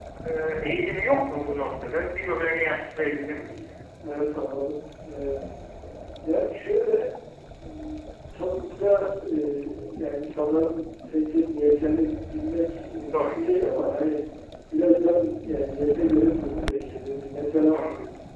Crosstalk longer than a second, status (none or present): none